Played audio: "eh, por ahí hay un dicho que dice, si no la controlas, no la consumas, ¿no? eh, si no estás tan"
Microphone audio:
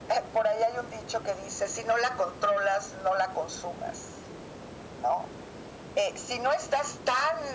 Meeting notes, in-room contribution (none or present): none